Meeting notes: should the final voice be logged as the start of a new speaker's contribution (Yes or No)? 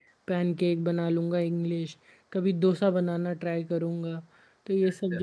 No